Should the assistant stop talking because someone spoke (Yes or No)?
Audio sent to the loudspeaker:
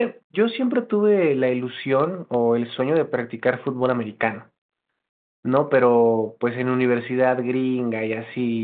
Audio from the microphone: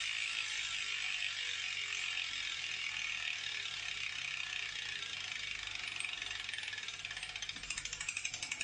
No